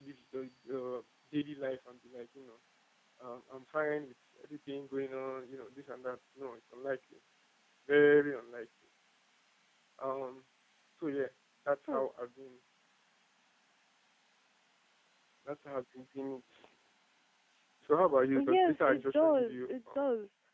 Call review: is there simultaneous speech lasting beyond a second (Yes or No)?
Yes